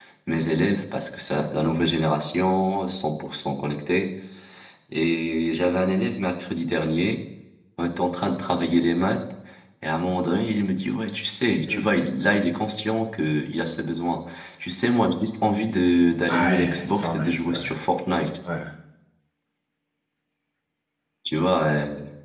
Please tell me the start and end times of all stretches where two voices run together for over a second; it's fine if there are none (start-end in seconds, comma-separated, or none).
16.3-17.7